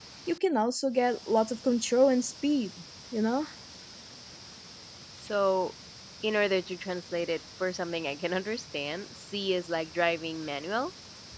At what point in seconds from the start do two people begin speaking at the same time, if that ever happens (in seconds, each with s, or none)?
none